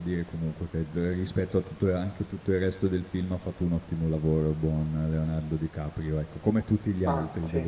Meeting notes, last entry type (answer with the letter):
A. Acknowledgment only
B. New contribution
A